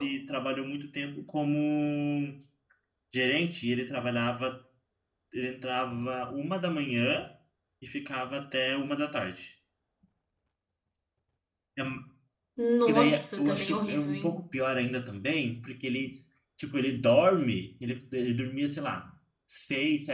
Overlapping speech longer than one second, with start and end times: 12.8-14.4

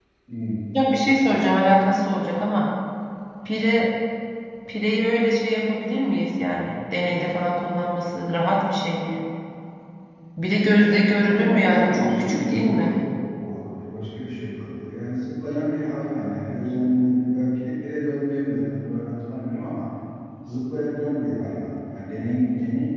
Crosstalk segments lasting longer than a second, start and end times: 11.2-12.9

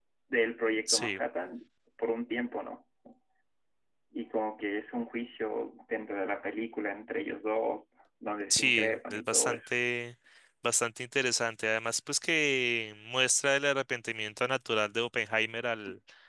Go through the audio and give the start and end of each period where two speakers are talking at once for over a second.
8.5-9.7

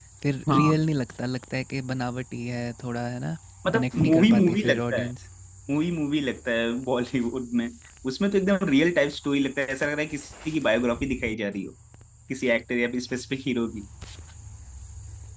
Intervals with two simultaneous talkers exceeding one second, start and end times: 3.7-5.1

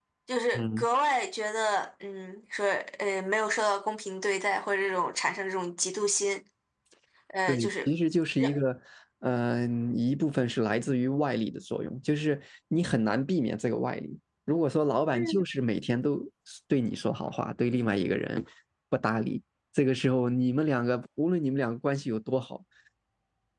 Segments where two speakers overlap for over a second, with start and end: none

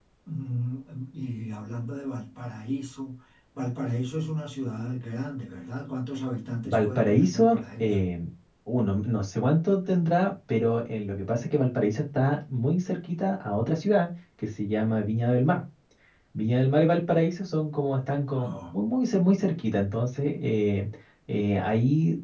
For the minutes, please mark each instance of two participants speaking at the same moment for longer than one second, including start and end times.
6.6-8.0

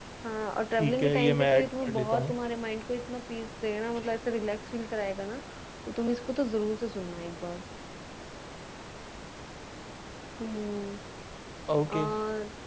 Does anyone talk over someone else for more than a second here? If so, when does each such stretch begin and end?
0.7-2.4

